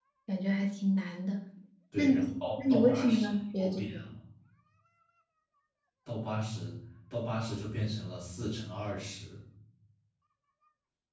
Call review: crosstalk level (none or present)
present